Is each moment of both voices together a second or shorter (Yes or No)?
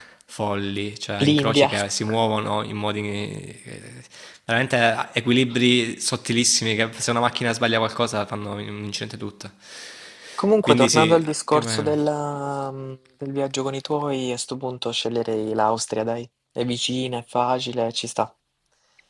No